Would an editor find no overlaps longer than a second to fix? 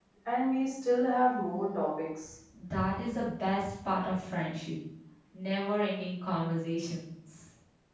Yes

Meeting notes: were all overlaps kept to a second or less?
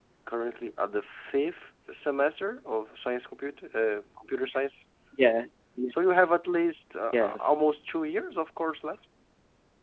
Yes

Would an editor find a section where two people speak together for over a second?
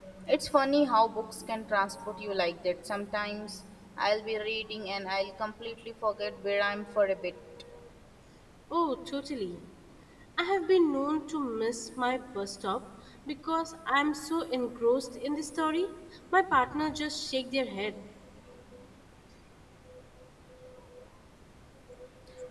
No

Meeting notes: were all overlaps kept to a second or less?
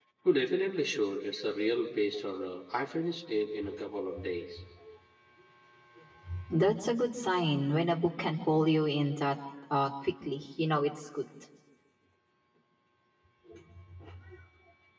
Yes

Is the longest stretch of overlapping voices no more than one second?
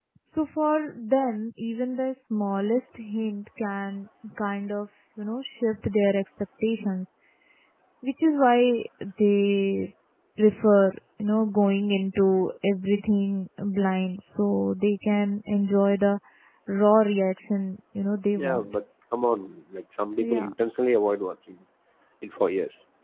Yes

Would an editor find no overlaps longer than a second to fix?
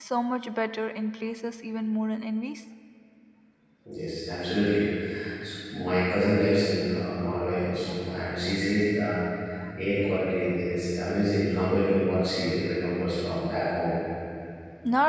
Yes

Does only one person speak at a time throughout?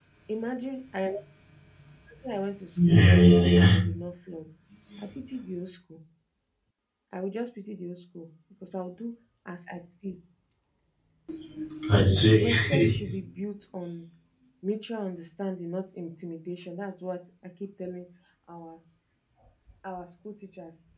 No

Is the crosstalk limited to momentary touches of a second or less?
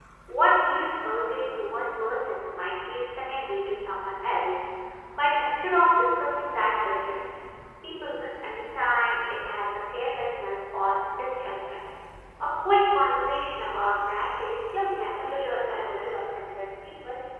No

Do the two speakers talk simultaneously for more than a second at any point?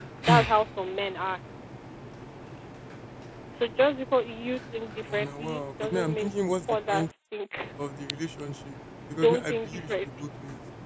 Yes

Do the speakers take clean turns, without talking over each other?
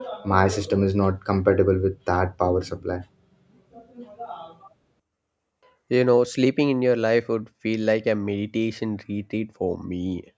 Yes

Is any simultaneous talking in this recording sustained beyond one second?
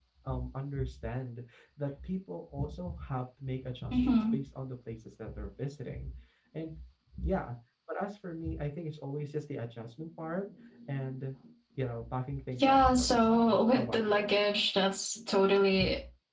Yes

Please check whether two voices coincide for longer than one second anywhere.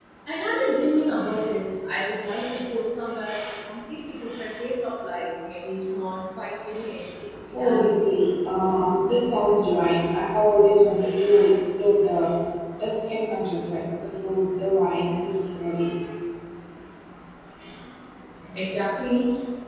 No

